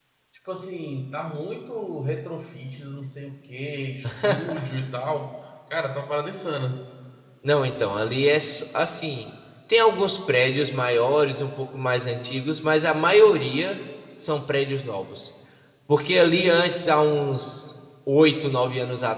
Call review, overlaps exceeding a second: none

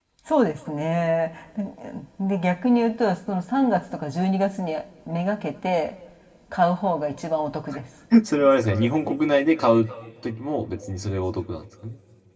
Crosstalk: none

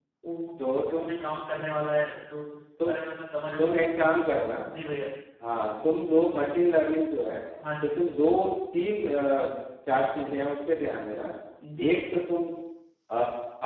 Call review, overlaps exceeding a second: none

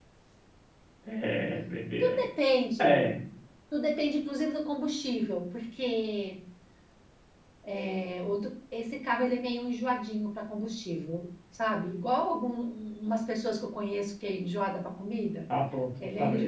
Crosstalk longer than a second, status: none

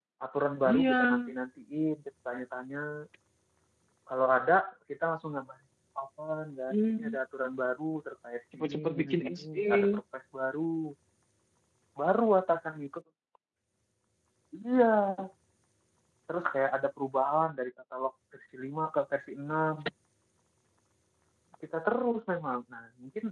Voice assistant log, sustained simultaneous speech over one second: present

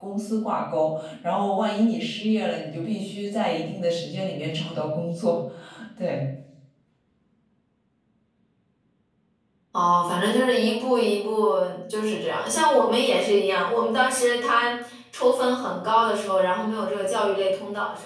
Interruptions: none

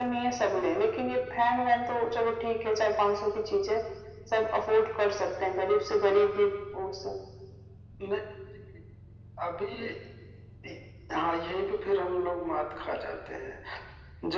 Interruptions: none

